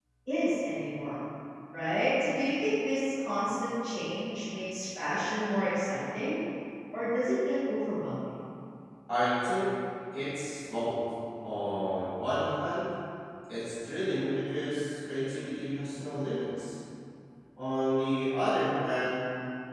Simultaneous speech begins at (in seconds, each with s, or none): none